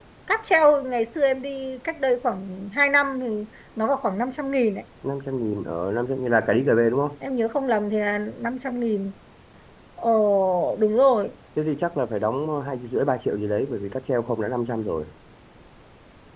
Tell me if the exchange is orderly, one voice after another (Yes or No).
Yes